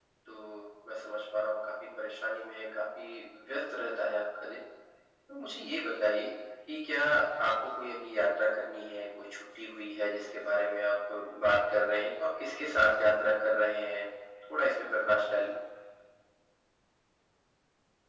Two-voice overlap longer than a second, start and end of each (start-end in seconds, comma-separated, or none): none